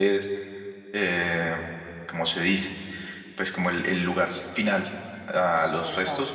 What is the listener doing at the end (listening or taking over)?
listening